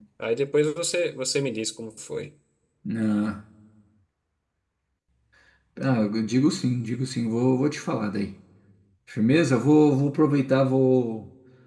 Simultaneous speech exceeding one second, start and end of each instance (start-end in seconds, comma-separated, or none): none